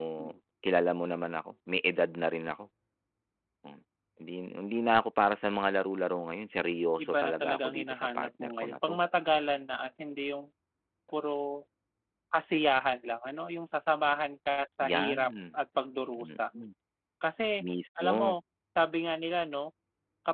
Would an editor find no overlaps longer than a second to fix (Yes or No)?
No